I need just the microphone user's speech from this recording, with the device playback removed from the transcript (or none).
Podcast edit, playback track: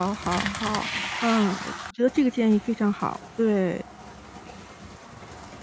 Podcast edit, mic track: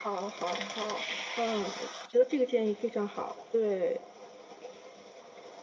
none